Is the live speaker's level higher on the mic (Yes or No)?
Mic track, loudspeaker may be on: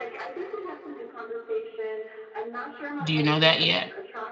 Yes